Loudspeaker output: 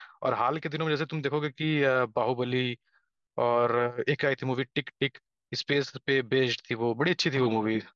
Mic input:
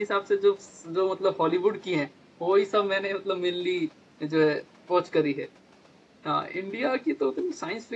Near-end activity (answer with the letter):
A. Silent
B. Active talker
B